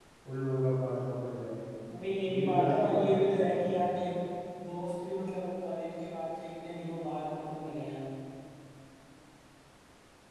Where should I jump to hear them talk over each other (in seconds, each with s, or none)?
2.2 s